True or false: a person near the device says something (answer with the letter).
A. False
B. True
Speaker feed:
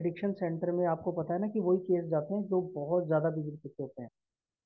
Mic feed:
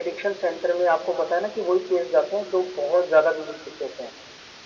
A